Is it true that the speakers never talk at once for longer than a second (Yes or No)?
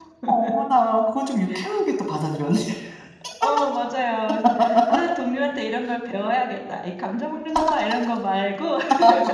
Yes